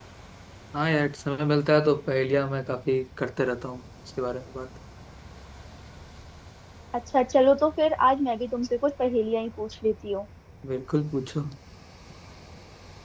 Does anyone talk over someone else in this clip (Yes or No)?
No